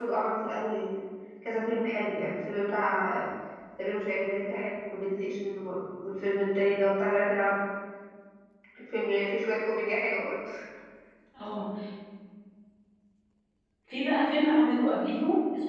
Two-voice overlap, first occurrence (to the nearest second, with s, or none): none